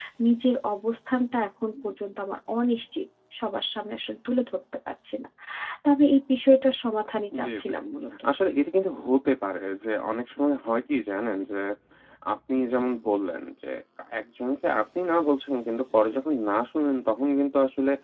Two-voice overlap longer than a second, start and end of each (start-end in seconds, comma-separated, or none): none